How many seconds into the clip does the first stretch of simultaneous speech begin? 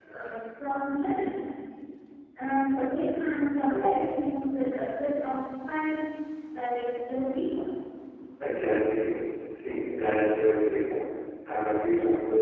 none

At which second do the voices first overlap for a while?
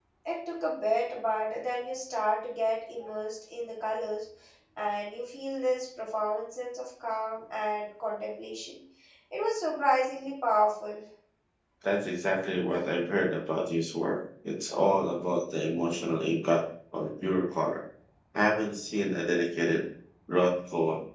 none

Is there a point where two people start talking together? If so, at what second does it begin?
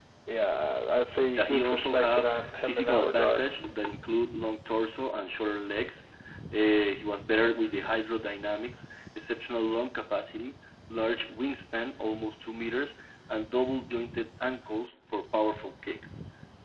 1.4 s

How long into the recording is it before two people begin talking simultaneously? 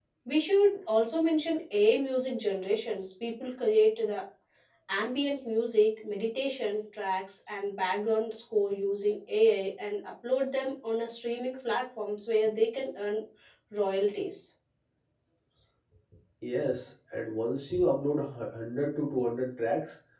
none

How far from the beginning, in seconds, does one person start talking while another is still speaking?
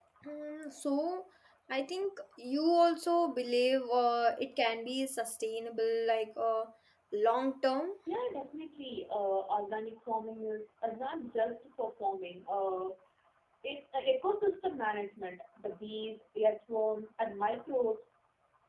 none

